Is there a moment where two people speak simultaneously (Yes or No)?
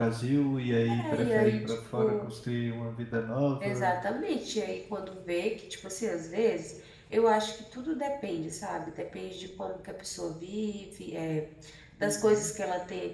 Yes